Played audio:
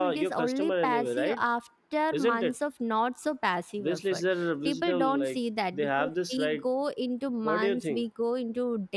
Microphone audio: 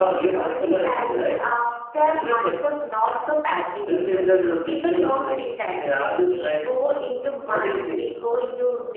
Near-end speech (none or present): none